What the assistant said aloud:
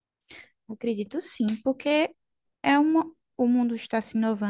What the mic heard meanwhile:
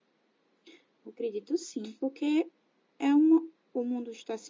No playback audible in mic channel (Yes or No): No